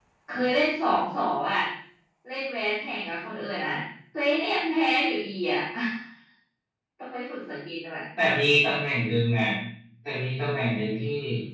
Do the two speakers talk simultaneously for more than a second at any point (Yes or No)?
No